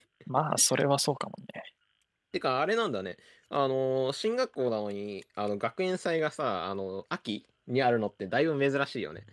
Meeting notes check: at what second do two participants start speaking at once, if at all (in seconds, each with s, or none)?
none